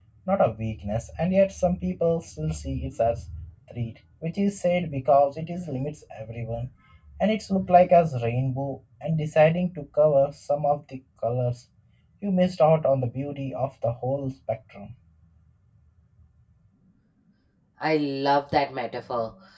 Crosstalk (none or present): none